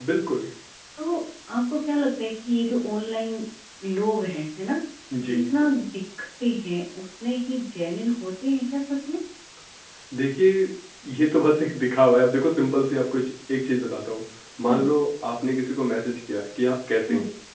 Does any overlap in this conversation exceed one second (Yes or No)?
No